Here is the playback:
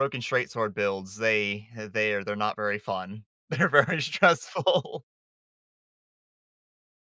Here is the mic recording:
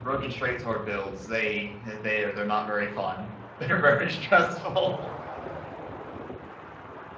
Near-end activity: none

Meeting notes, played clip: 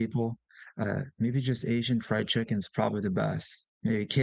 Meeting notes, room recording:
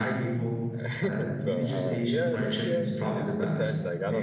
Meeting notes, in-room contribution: present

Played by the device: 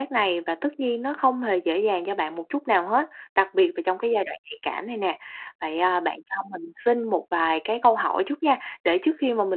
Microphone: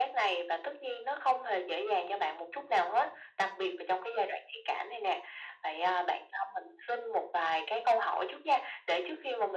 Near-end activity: none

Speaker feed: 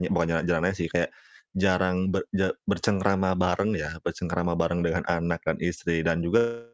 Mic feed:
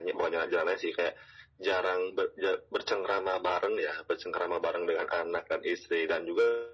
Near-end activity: none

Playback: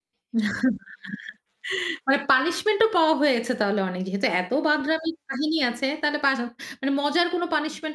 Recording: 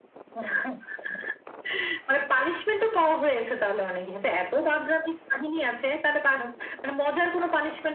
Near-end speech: none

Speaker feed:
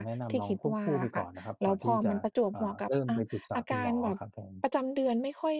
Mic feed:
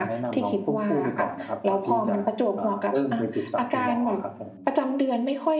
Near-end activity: none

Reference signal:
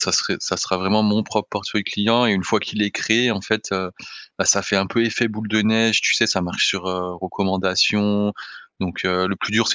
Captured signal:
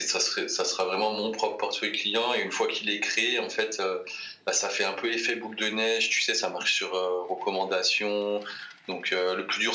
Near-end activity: none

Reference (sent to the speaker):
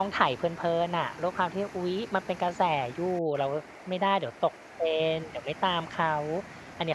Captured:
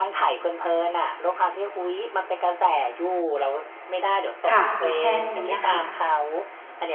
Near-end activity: present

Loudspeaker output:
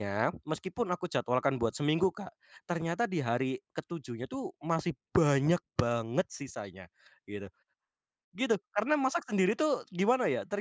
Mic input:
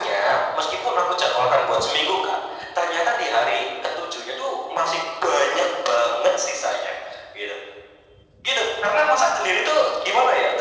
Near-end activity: none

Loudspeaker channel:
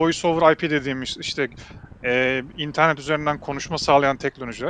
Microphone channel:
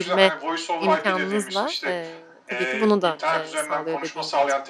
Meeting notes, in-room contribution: present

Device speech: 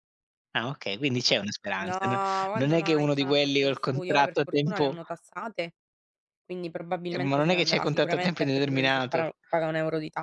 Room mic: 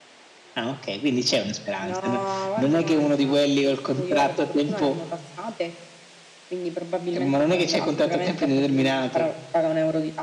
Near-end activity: none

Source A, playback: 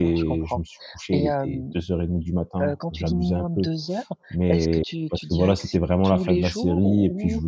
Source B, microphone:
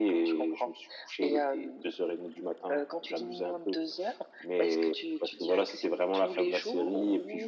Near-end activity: none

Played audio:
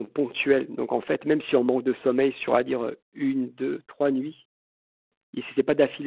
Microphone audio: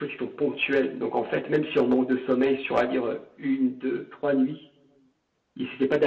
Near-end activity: none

